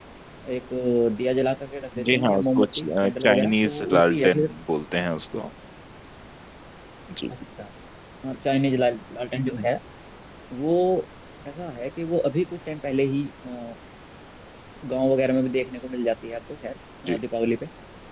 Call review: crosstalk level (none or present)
present